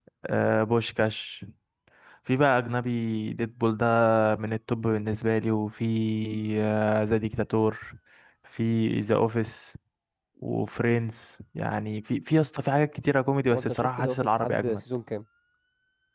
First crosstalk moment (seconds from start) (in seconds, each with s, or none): 13.5 s